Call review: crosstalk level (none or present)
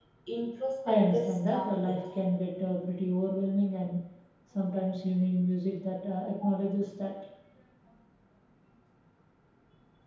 present